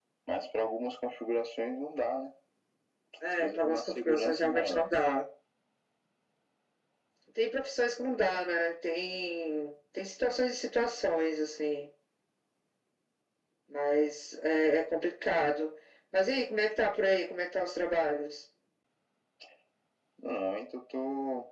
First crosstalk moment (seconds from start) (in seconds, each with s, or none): 3.3 s